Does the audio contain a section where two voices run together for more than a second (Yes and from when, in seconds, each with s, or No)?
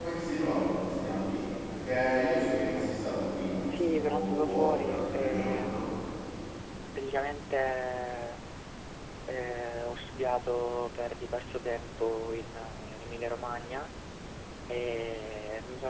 Yes, from 3.6 s